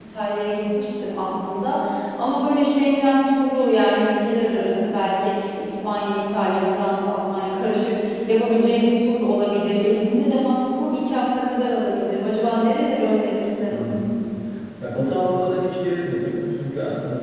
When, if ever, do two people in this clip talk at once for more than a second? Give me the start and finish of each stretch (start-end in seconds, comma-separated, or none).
none